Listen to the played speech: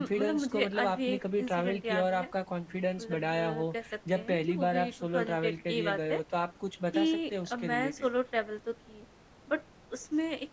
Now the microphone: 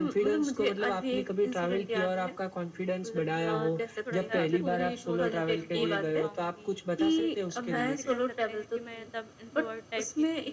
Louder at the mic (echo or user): echo